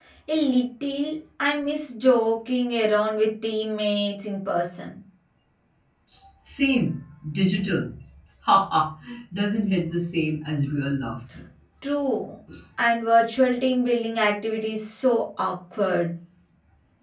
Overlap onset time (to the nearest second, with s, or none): none